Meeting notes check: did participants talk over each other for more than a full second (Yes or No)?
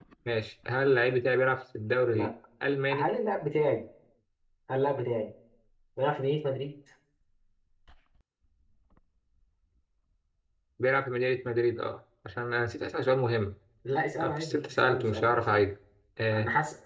Yes